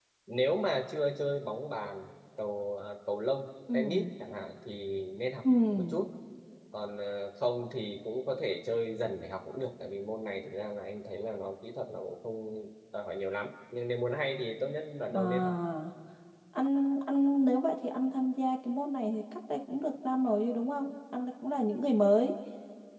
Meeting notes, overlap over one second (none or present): none